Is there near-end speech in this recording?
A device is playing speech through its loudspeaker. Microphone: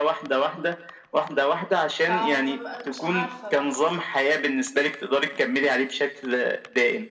Yes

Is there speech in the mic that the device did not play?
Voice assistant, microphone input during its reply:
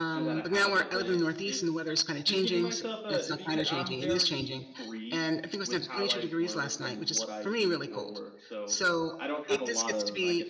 Yes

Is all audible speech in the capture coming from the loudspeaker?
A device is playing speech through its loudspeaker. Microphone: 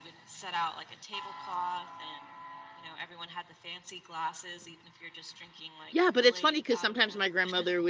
No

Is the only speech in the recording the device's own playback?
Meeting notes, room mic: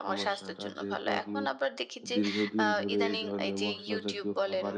No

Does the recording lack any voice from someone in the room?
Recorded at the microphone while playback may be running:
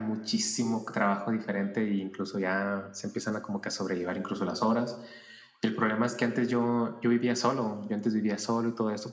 Yes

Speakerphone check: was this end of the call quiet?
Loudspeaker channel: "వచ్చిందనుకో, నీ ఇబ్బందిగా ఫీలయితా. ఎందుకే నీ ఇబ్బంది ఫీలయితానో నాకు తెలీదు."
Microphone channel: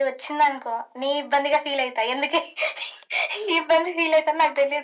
Yes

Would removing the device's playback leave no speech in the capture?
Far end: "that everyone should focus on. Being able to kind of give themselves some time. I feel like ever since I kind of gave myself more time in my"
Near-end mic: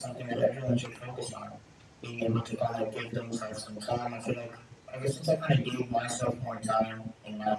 Yes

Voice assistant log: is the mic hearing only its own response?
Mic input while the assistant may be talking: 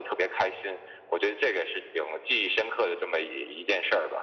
Yes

